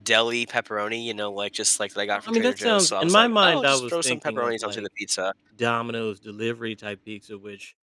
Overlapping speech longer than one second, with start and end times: 2.3-4.8

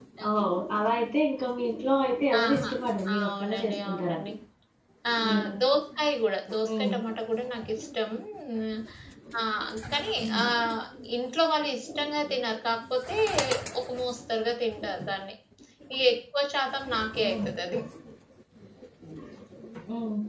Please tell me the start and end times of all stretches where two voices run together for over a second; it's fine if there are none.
3.1-4.3

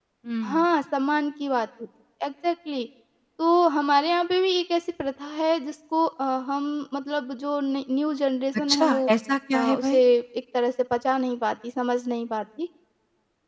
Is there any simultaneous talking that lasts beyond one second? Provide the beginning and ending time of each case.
none

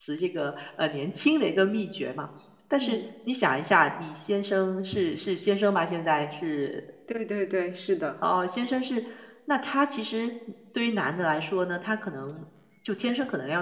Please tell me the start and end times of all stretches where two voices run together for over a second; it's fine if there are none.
none

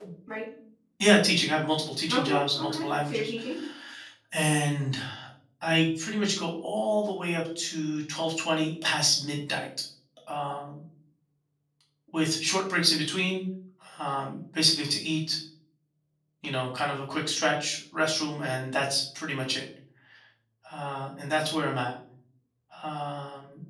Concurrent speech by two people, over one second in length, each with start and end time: 2.1-3.3

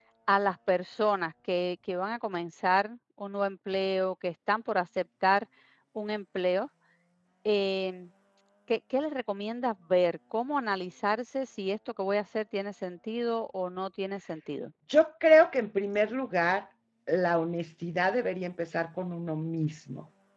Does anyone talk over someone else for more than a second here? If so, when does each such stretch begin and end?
none

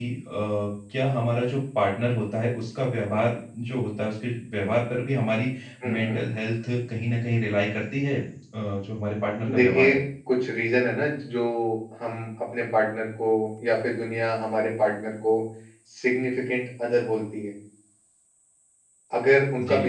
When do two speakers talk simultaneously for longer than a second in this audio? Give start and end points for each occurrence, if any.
none

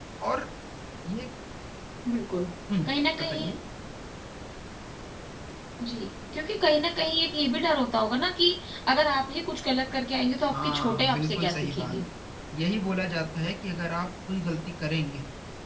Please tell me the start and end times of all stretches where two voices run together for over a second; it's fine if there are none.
10.5-12.0

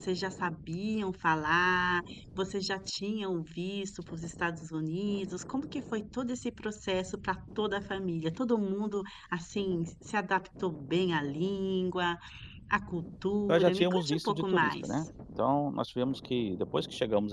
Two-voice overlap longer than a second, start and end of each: 13.5-14.9

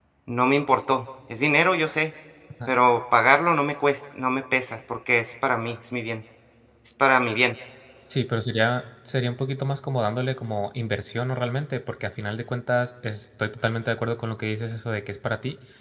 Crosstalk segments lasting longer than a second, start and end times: none

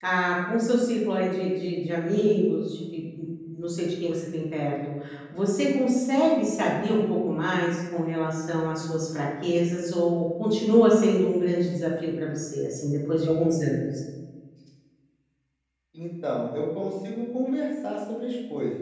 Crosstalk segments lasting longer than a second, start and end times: none

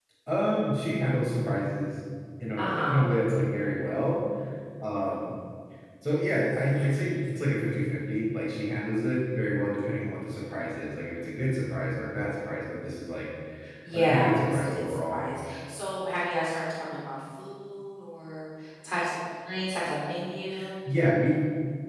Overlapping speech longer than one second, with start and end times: 13.9-15.2

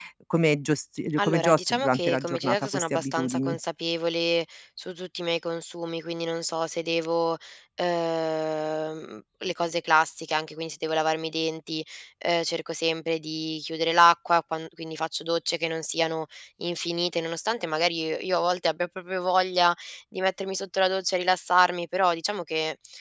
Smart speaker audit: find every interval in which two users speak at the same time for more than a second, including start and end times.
1.2-3.6

